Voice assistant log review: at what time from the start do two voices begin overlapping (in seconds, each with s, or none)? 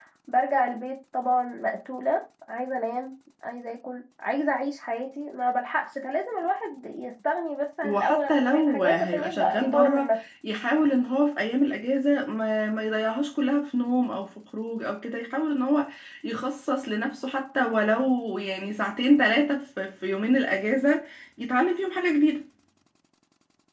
7.8 s